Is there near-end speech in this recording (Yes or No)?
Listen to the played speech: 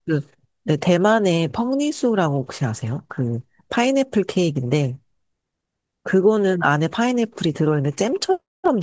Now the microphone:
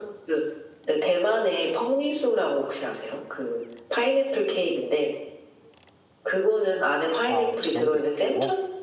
Yes